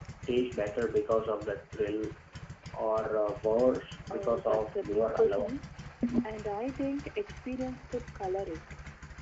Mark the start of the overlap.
4.1 s

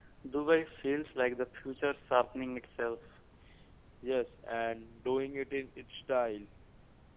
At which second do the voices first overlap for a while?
none

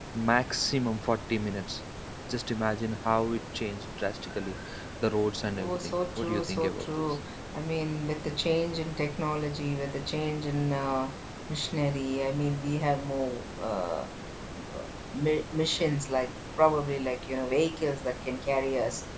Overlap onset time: 5.5 s

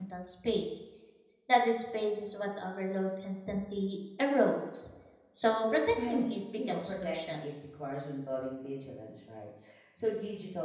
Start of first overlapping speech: 6.0 s

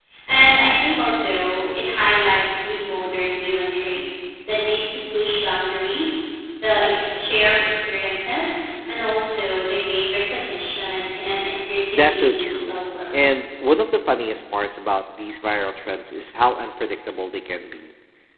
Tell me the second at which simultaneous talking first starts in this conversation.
11.9 s

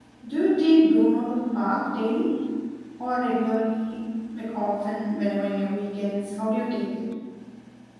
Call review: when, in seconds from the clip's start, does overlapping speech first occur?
none

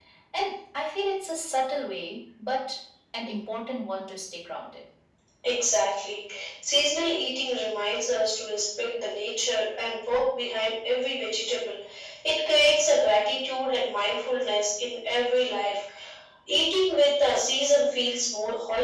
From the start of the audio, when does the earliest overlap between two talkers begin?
none

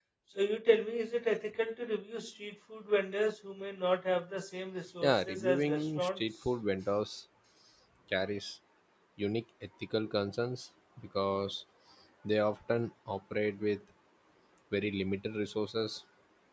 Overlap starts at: 5.0 s

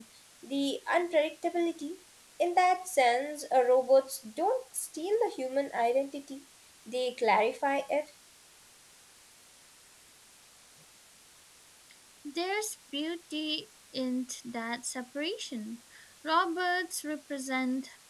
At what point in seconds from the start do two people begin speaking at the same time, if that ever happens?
none

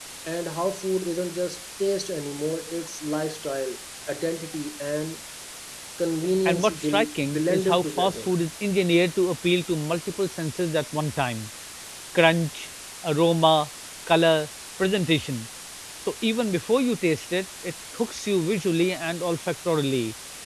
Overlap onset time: 6.5 s

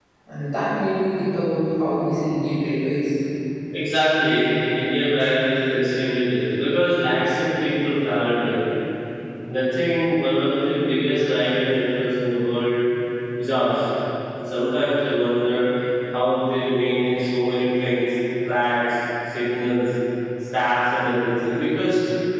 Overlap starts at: none

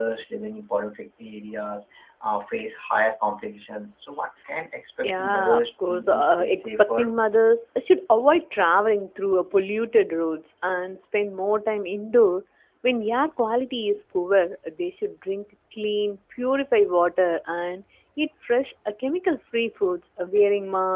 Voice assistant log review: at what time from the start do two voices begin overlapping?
5.0 s

